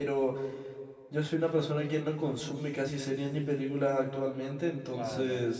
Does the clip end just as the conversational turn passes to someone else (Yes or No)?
No